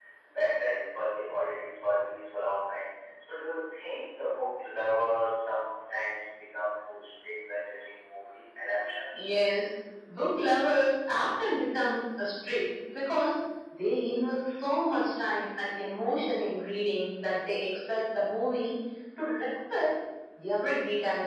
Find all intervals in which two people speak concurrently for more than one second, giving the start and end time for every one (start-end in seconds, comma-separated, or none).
none